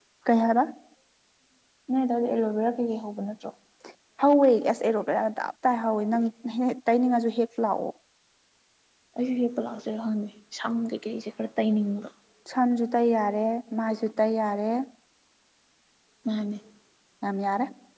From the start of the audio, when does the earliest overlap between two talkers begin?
none

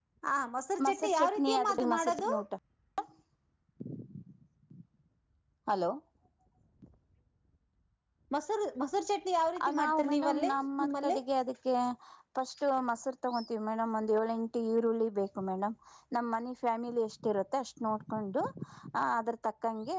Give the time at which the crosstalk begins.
0.8 s

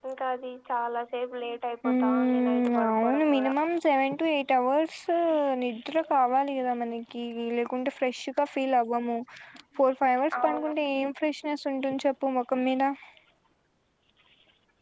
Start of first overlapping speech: 1.9 s

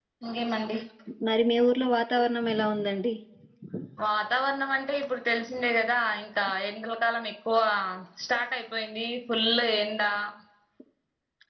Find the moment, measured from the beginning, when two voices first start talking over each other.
none

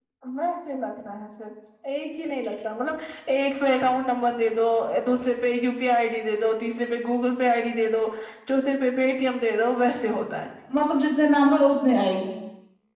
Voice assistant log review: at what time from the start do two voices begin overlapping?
none

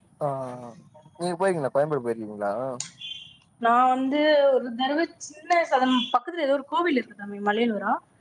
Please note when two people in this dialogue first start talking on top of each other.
none

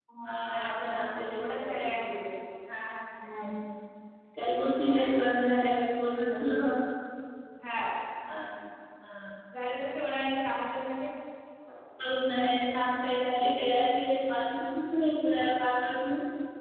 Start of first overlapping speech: 0.6 s

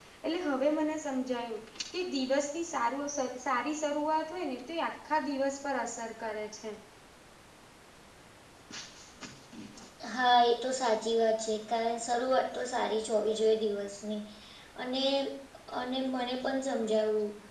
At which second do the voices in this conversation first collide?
none

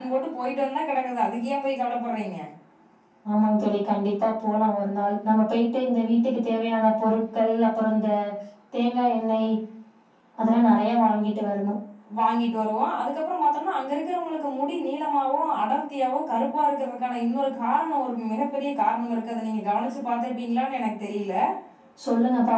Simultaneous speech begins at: none

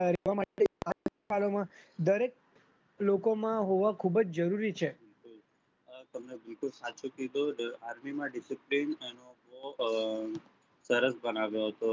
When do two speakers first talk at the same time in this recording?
none

